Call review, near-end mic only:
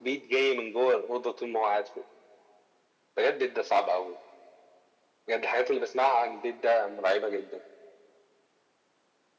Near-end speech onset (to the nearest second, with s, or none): none